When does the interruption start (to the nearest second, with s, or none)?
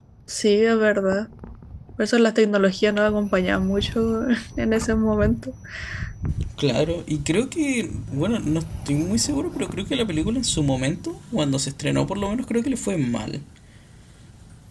none